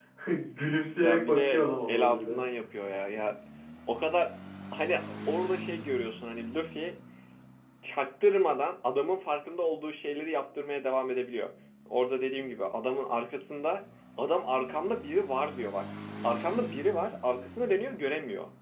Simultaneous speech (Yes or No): Yes